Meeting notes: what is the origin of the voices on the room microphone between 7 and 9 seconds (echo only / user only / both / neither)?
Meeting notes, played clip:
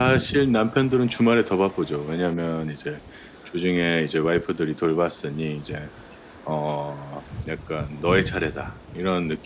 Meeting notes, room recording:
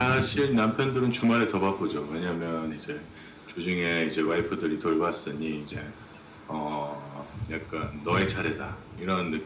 echo only